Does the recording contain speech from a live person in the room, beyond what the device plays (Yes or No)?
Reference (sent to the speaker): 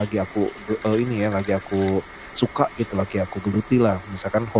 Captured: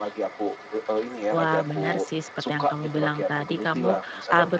Yes